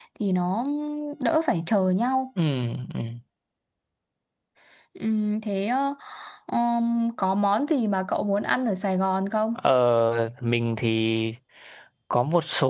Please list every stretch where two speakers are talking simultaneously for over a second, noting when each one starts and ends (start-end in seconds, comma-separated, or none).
none